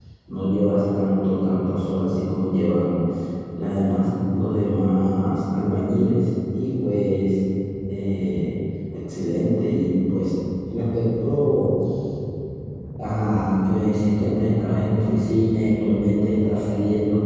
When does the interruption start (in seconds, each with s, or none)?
none